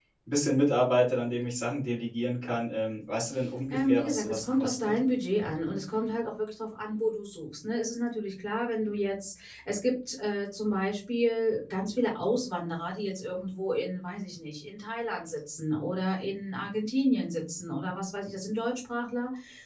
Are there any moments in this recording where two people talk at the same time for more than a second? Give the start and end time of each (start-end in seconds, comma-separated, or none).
3.7-4.9